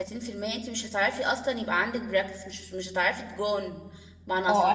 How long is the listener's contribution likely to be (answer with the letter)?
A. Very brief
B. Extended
B